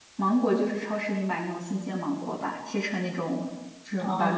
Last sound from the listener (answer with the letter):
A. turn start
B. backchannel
B